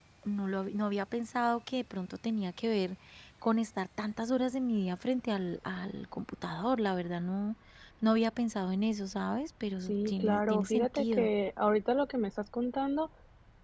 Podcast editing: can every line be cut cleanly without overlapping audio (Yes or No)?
No